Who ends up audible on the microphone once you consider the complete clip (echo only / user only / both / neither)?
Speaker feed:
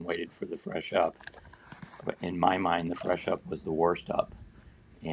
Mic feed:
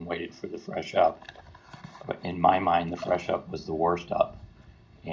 echo only